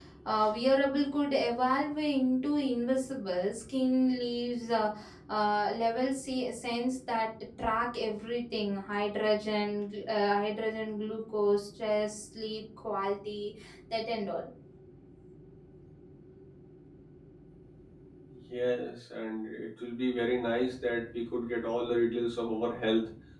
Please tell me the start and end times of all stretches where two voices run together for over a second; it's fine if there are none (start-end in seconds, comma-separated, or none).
none